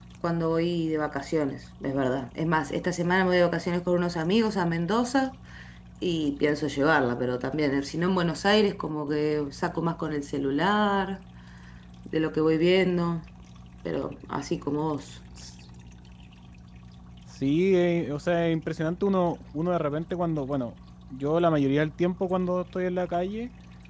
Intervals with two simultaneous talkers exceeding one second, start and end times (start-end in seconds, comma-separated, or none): none